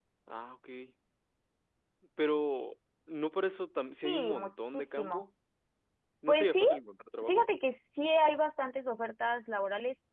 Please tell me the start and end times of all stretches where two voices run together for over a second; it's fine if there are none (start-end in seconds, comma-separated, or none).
4.0-5.2